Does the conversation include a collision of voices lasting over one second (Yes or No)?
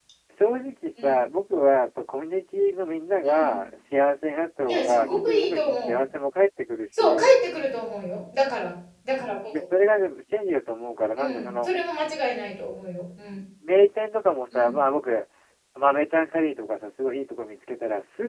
Yes